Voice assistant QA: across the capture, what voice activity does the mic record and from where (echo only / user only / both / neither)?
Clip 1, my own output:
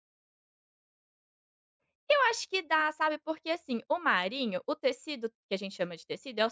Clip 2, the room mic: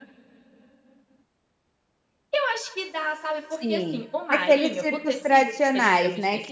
both